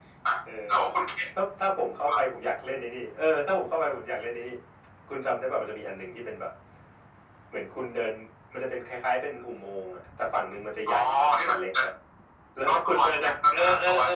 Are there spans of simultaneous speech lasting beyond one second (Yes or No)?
Yes